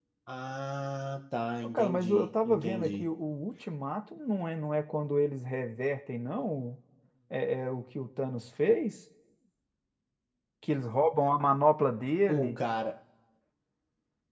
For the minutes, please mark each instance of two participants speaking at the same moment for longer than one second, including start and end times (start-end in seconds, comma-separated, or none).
1.6-3.1